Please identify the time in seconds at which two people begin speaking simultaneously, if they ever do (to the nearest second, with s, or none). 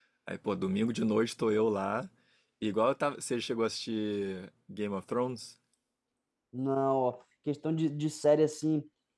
none